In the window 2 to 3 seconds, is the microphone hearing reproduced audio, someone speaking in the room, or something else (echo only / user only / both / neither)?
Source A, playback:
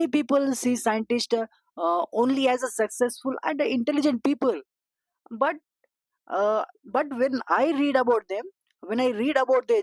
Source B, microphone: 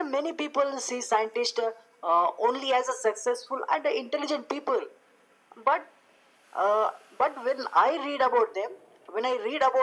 echo only